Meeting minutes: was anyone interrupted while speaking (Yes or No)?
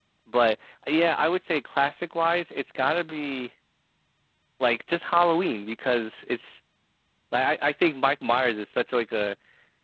No